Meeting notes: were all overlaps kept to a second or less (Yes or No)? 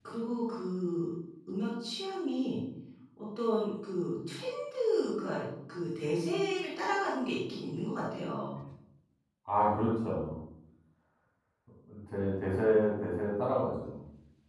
Yes